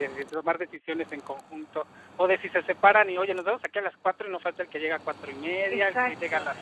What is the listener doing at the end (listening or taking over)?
taking over